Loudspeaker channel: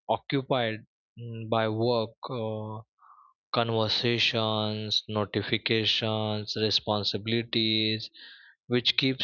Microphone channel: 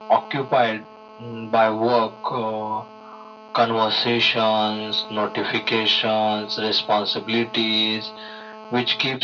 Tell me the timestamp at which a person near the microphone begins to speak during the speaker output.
none

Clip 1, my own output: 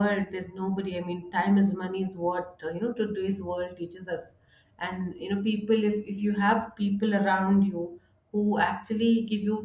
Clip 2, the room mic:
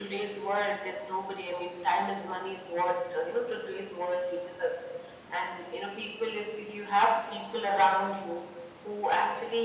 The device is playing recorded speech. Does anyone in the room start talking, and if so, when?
none

